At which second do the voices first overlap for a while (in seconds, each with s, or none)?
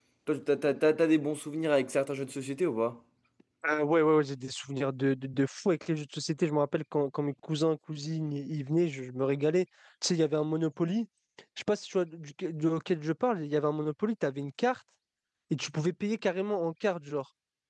none